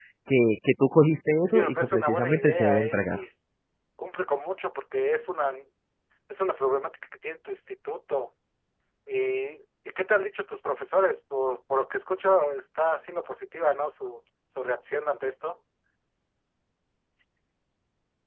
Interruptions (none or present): present